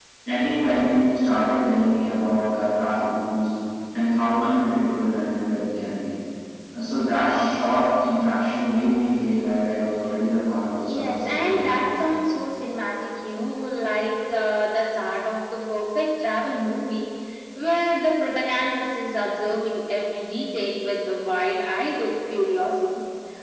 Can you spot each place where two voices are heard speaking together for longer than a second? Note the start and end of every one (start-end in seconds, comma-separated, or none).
10.8-12.1